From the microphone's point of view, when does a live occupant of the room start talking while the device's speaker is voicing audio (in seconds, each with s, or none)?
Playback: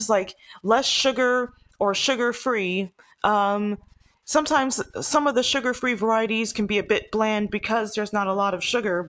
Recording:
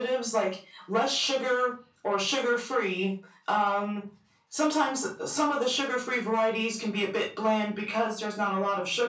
none